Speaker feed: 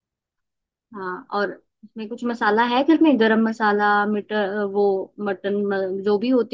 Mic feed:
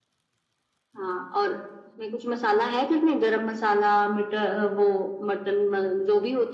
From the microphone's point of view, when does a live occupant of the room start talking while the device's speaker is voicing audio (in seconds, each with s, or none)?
none